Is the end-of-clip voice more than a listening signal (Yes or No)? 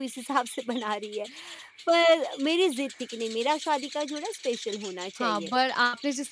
Yes